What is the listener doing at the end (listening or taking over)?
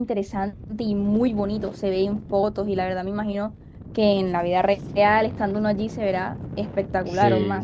taking over